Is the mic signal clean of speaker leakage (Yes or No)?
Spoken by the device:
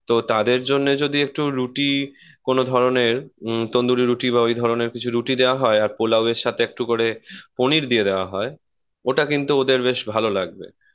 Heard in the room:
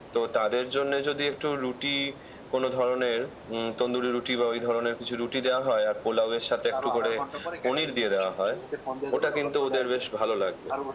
No